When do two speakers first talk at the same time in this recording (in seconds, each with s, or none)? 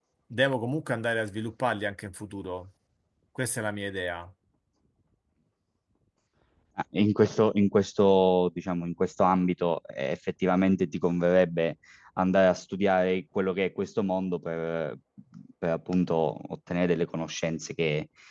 none